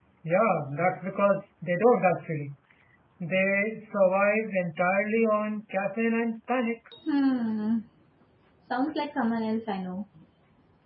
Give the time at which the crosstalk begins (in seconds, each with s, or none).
none